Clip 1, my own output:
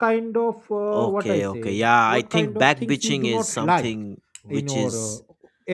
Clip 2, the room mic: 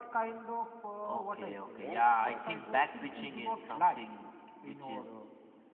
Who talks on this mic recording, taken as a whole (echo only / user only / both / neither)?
both